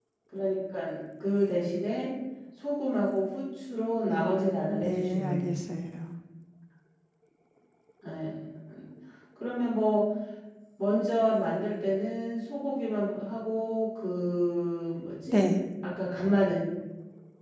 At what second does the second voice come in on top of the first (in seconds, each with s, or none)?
4.1 s